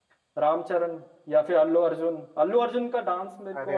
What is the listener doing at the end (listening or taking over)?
listening